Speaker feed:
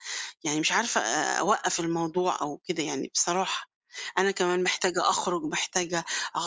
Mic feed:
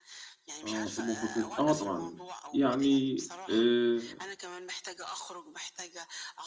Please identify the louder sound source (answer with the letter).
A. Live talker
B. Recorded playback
A